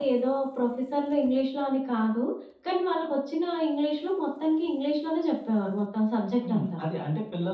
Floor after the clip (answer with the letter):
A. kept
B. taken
B